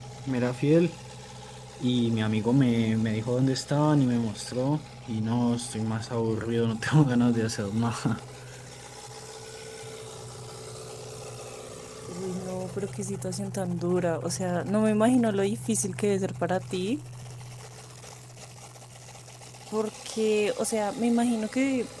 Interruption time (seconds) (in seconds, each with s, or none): none